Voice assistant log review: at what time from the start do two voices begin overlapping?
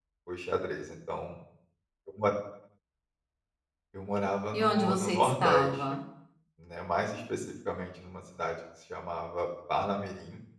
4.5 s

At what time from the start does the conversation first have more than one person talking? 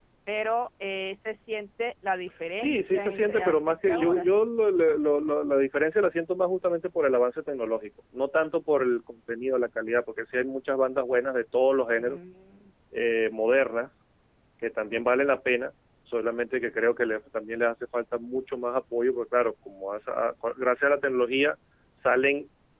2.6 s

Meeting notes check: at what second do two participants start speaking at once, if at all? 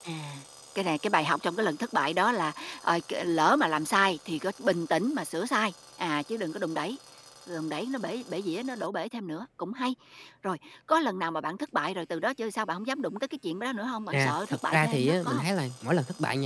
14.1 s

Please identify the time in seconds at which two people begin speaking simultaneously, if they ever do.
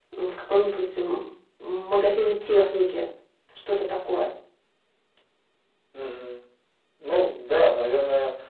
none

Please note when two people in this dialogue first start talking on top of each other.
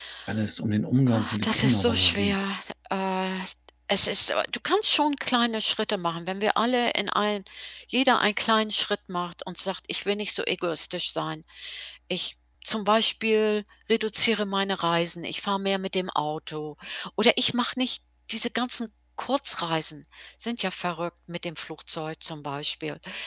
1.1 s

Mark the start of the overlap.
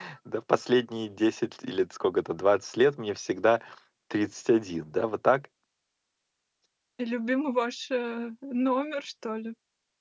none

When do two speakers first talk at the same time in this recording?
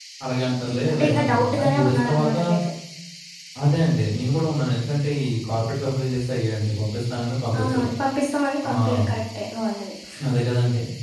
0.5 s

